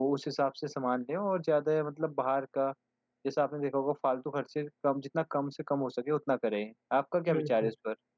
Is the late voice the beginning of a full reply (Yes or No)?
Yes